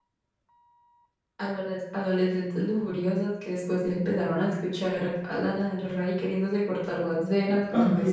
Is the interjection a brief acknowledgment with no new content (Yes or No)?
No